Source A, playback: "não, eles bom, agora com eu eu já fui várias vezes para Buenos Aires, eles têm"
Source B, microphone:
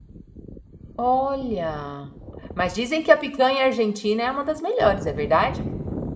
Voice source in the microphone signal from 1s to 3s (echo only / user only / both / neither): user only